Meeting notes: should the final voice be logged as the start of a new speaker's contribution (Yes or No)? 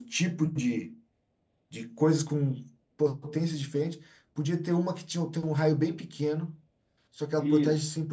No